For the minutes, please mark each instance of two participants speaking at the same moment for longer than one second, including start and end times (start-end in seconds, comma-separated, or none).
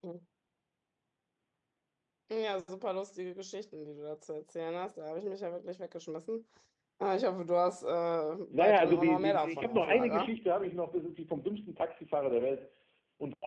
8.5-10.3